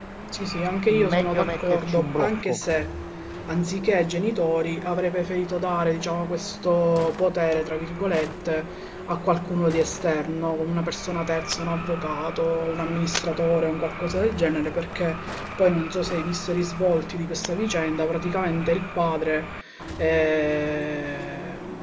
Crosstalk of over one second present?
Yes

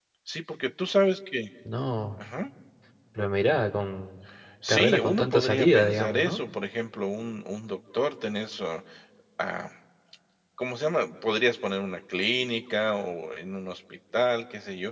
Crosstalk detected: Yes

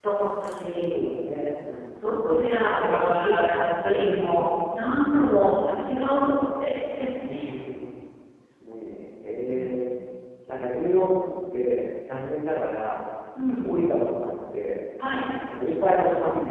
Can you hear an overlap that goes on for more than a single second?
Yes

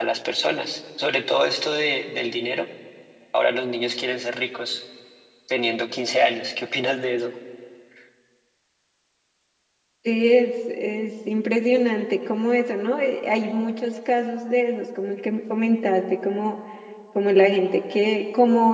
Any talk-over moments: No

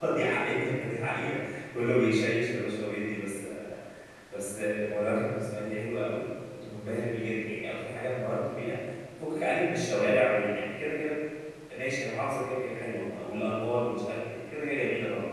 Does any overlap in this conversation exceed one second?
No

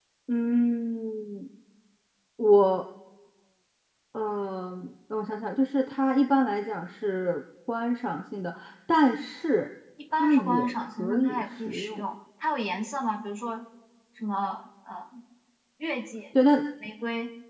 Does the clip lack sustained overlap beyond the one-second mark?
No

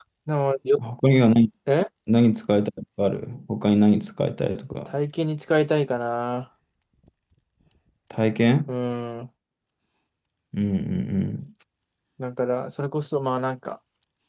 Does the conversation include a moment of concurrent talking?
No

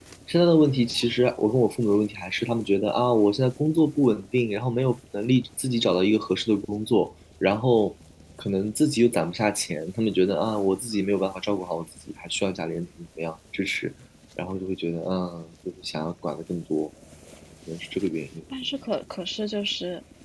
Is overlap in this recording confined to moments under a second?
Yes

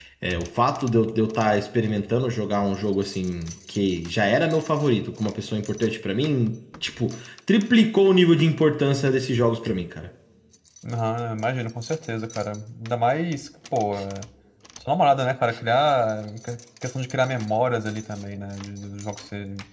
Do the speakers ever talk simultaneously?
No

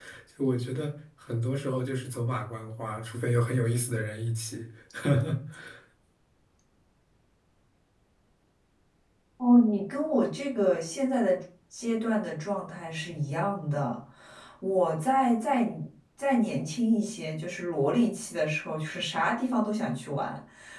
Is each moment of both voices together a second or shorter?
Yes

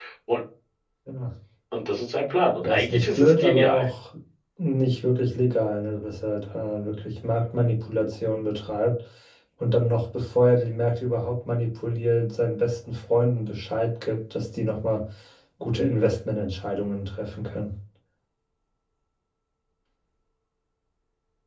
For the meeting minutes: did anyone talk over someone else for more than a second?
Yes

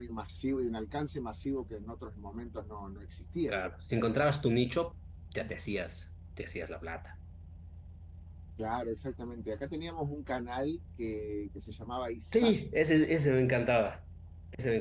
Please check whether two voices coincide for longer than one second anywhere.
No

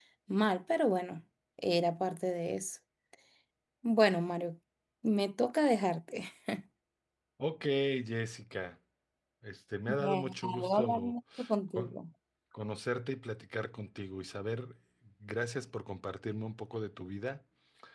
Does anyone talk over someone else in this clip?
Yes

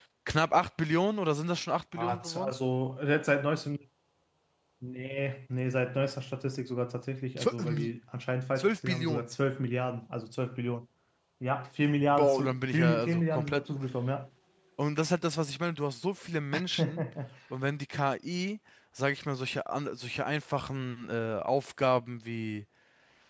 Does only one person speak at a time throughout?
No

